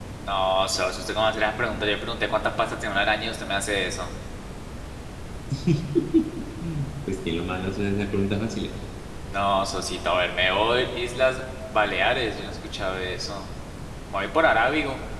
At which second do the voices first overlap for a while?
none

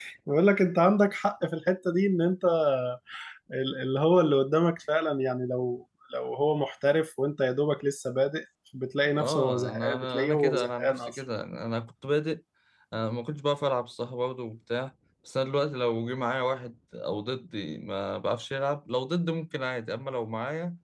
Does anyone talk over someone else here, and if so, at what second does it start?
9.2 s

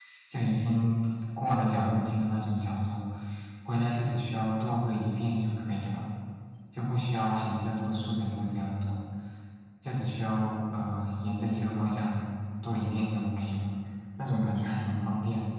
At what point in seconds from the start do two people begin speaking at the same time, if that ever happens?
none

